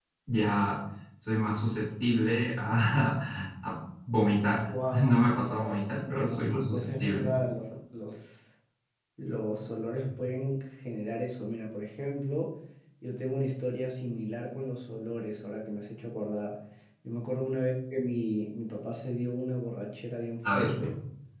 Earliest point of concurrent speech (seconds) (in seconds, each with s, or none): 4.7 s